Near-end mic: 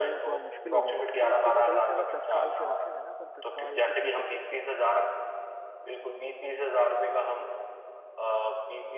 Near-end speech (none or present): present